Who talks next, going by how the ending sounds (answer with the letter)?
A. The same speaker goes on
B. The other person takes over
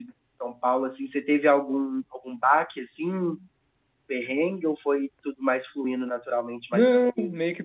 B